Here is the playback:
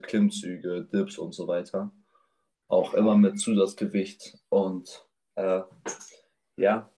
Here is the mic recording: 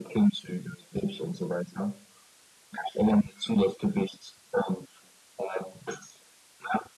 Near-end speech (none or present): none